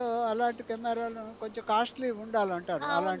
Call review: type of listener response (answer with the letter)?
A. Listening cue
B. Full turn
B